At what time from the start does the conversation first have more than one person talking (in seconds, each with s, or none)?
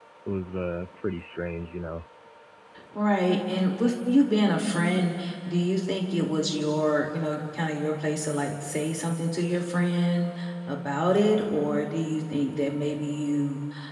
none